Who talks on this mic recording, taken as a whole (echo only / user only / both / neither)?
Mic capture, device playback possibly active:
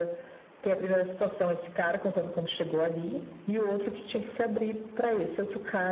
echo only